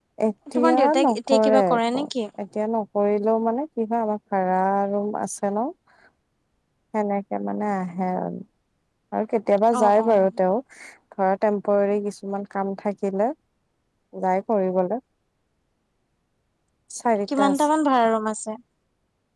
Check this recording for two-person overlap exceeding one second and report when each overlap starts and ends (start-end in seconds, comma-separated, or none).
0.6-2.0